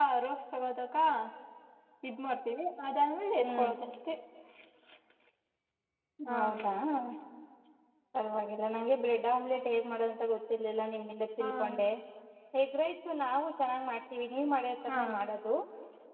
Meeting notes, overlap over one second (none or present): none